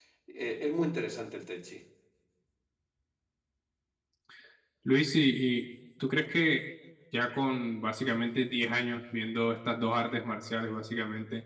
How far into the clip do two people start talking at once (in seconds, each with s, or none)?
none